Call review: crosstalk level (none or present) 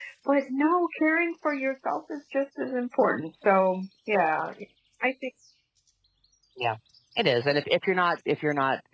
none